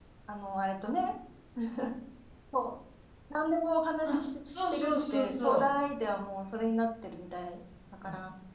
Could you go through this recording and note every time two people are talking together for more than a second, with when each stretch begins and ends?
4.0-5.7

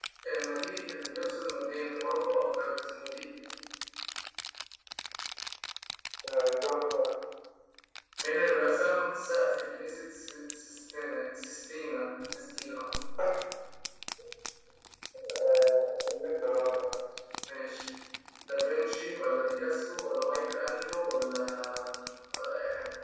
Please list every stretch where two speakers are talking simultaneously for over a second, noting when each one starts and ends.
none

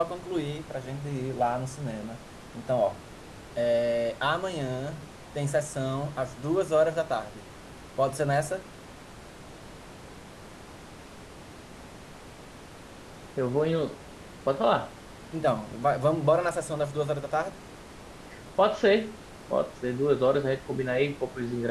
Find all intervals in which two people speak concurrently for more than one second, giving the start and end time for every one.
none

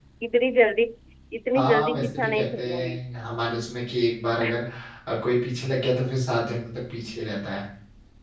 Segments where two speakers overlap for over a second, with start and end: 1.6-3.0

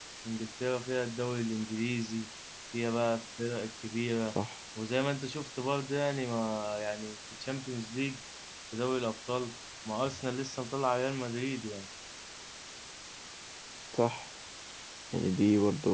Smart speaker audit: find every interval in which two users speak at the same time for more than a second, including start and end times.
none

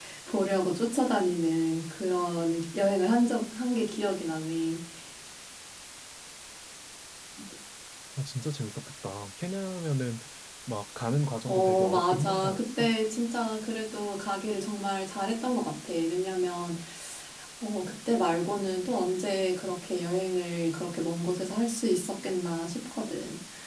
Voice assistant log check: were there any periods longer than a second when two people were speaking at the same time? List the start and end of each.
11.5-12.9

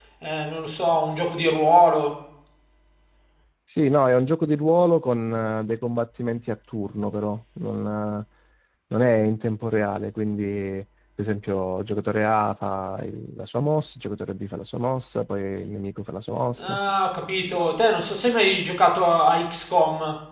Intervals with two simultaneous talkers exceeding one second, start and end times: none

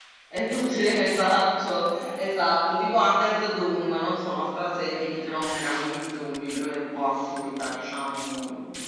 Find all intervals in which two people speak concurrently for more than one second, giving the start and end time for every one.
none

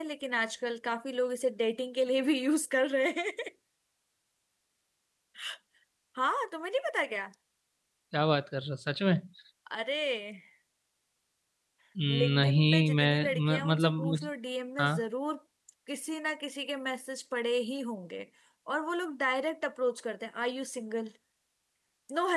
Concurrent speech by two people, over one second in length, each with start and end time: 12.3-14.2

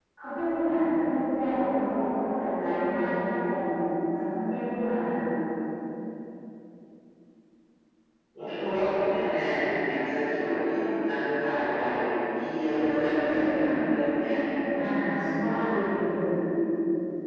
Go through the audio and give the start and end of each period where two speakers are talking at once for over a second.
12.8-14.3

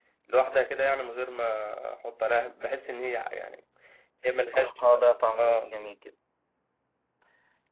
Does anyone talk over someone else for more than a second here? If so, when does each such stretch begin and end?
none

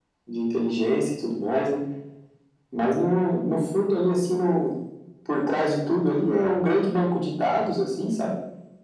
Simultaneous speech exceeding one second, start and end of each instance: none

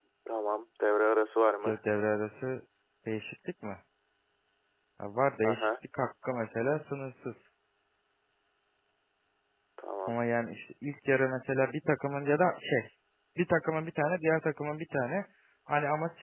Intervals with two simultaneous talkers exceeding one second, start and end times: none

